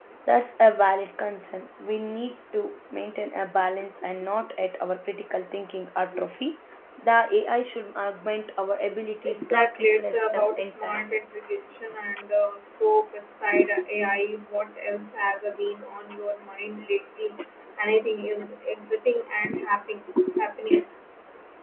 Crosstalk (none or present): present